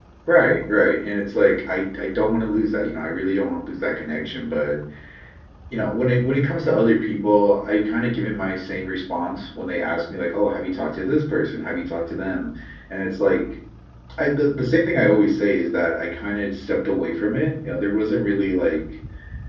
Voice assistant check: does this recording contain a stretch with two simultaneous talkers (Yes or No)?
No